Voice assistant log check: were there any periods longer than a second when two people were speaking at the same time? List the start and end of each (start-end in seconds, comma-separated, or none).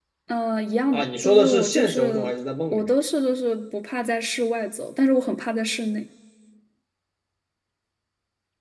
0.9-2.3